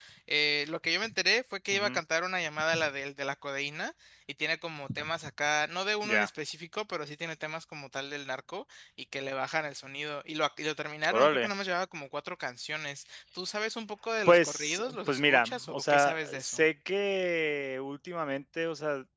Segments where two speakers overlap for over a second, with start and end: 14.2-16.6

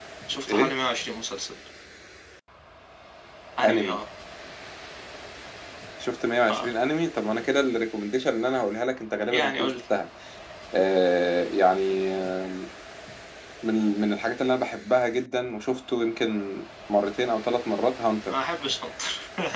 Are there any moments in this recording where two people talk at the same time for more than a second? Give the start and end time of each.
none

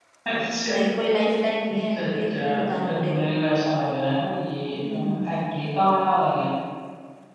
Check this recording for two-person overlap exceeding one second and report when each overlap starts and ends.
1.6-3.3

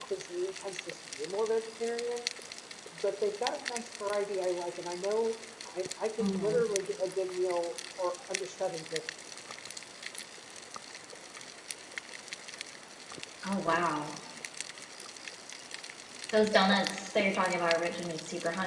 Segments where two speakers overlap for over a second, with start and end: none

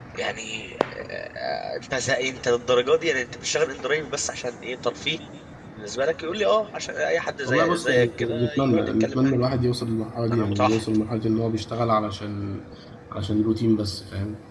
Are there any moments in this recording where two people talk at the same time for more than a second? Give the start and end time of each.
7.5-9.4

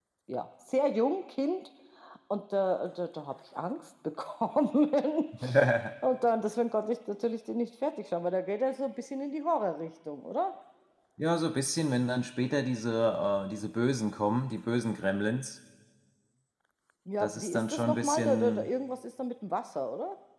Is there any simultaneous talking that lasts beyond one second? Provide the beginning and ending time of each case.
17.2-18.7

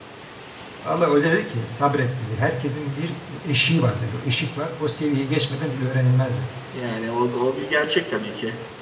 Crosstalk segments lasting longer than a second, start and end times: none

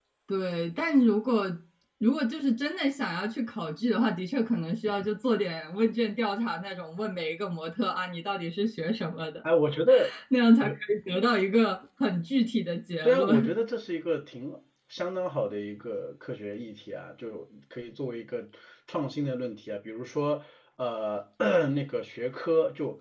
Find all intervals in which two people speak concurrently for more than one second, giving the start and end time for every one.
none

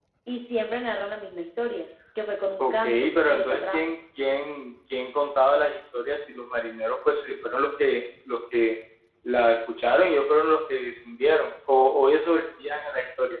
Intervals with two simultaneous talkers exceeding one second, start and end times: 2.6-3.9

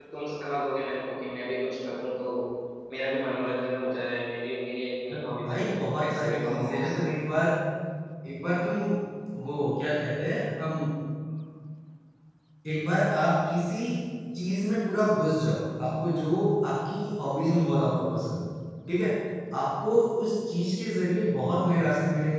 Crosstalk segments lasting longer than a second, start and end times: 5.1-7.0

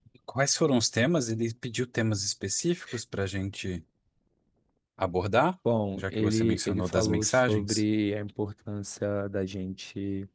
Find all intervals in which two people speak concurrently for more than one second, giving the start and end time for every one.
6.0-7.8

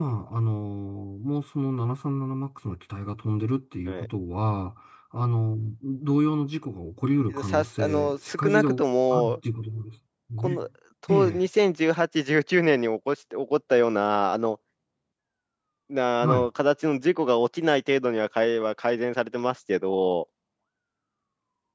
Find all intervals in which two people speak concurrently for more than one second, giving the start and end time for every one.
7.3-8.7

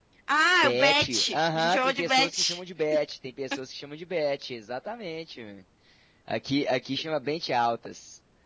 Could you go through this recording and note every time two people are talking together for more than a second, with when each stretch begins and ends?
0.6-2.6

